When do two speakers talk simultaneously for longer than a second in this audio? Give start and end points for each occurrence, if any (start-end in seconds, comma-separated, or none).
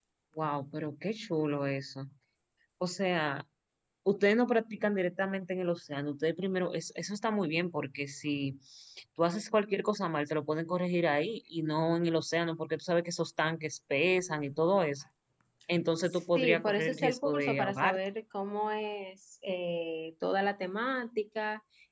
16.1-18.0